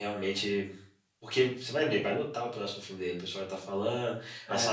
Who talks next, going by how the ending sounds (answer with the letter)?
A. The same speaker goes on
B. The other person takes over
A